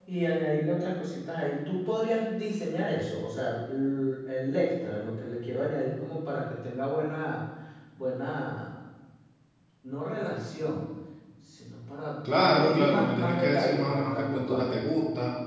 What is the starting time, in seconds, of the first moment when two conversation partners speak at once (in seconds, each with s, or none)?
12.2 s